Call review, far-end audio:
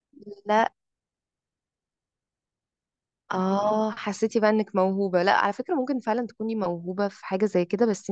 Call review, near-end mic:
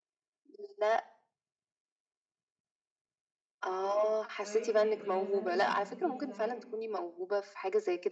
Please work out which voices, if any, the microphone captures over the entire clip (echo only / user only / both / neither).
both